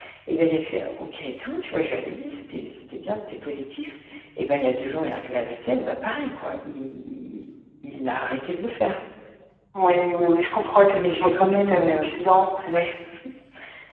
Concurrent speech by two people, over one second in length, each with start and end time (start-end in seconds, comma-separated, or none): 10.9-12.1